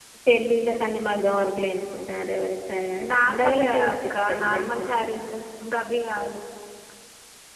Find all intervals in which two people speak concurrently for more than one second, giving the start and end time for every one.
3.1-4.9

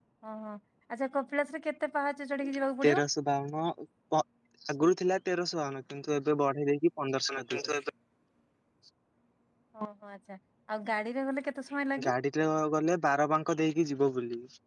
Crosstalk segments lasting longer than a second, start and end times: none

